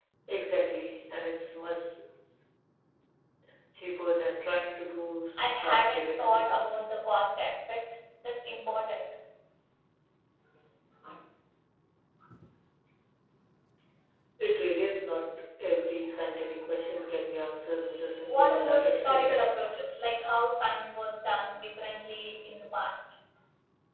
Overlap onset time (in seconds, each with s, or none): 5.6 s